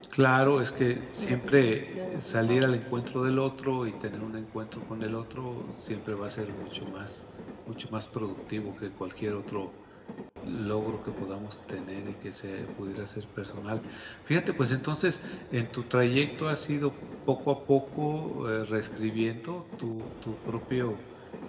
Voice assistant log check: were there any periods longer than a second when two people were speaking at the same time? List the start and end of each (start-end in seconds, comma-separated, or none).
1.2-2.7